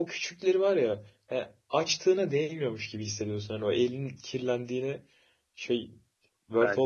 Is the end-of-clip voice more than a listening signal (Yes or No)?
Yes